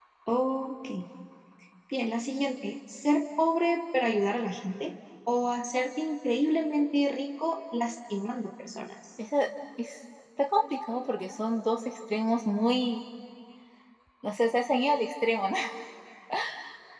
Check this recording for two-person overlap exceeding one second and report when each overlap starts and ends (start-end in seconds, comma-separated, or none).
none